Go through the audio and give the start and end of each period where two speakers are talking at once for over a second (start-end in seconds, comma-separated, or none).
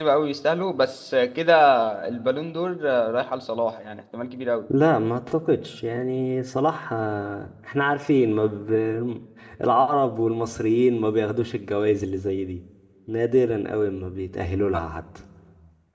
none